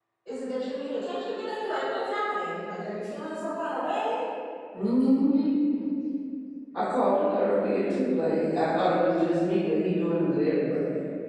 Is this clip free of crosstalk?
Yes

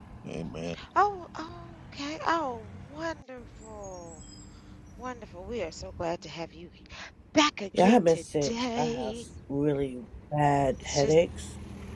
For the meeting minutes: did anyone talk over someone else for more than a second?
Yes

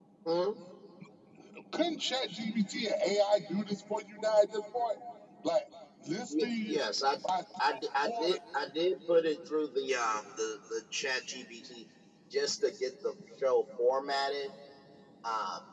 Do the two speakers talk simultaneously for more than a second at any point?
No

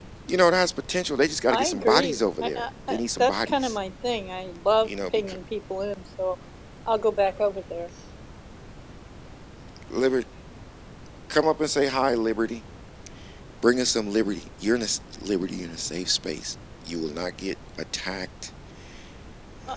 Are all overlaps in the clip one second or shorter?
No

